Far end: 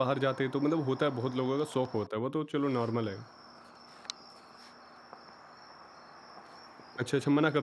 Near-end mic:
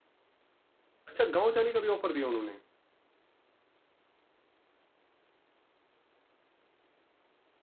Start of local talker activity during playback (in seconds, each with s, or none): 1.1 s